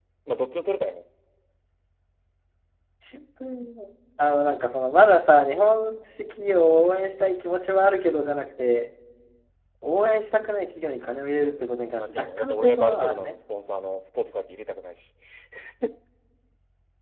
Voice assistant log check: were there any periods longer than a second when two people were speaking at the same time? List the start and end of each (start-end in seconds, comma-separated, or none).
11.3-13.3